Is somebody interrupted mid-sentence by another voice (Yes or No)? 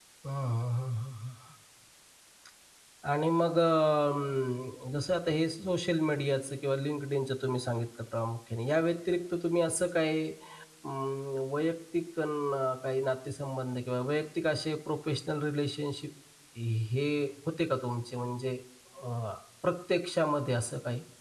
No